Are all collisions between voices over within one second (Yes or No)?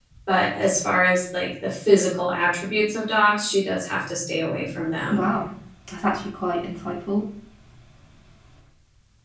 Yes